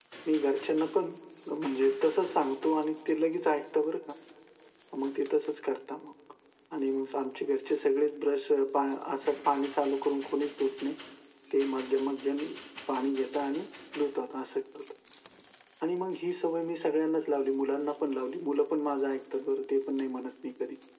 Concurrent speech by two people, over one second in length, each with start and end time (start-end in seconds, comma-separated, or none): none